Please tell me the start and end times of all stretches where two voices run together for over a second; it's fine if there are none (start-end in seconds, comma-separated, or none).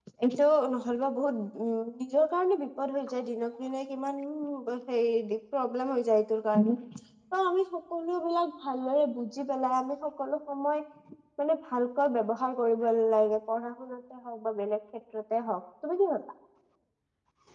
none